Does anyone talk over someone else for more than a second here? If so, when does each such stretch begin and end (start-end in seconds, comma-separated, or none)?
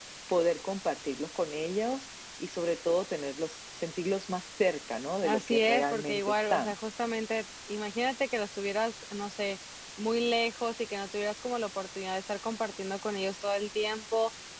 5.2-6.7